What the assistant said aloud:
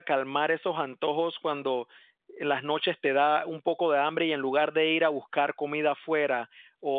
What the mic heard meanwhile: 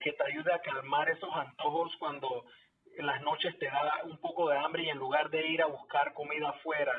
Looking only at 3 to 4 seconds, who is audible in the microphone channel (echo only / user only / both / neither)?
echo only